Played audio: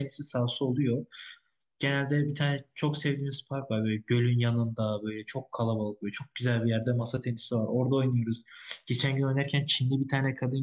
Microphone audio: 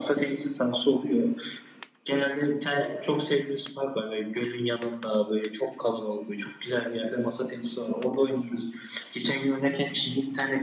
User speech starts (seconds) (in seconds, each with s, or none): 2.7 s